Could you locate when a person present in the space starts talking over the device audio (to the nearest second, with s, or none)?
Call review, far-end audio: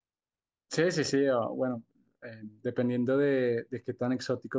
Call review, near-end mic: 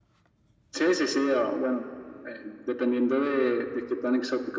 none